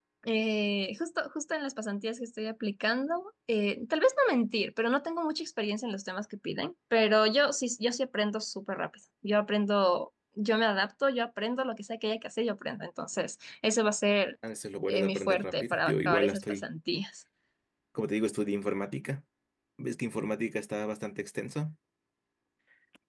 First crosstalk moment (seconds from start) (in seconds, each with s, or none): 14.9 s